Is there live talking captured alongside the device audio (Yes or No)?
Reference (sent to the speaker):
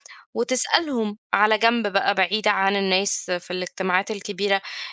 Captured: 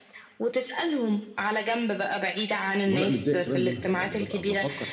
Yes